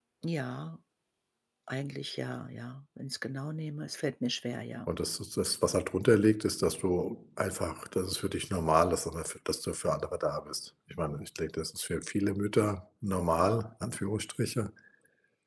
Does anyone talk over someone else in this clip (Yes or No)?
No